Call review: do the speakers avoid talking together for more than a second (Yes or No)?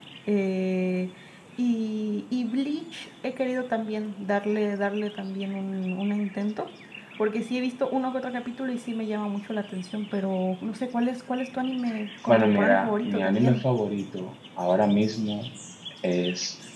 No